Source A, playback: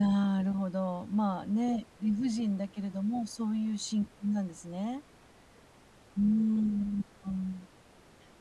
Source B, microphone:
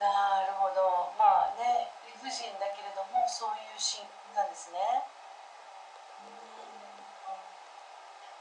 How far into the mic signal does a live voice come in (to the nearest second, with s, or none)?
none